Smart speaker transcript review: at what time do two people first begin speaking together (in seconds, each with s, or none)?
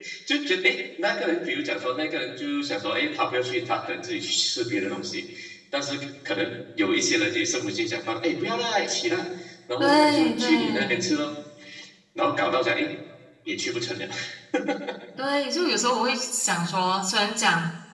9.8 s